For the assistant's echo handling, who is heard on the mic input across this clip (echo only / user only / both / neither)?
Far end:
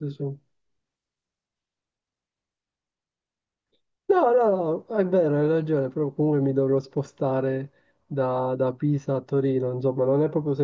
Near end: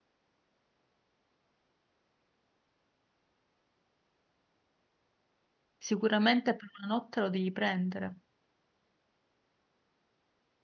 user only